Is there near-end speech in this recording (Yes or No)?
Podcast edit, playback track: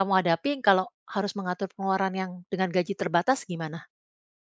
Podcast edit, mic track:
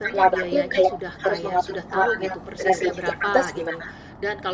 Yes